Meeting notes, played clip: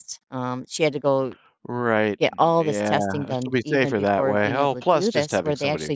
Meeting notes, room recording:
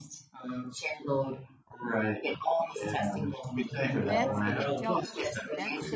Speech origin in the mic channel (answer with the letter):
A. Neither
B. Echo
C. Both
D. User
C